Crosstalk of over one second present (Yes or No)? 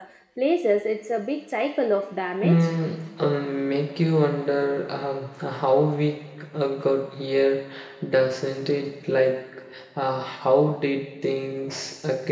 No